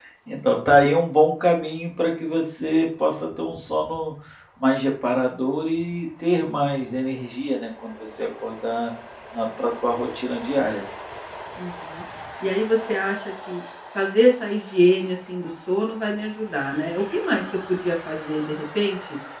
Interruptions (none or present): none